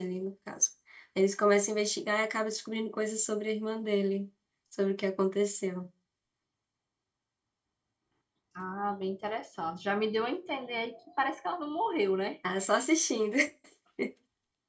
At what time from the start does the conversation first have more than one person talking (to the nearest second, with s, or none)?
none